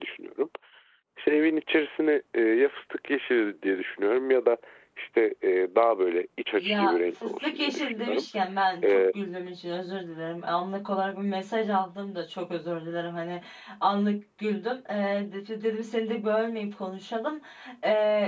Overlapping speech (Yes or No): Yes